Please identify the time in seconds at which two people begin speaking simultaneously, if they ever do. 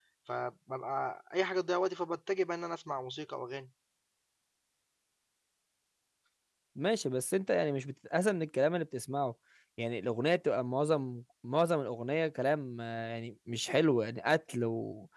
none

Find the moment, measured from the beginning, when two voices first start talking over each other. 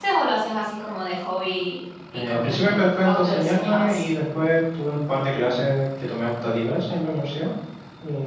2.1 s

